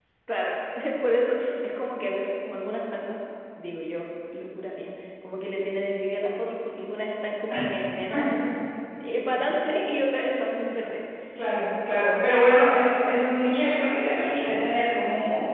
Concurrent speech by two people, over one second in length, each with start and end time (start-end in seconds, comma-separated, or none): none